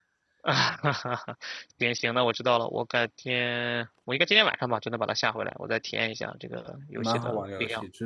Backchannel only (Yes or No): No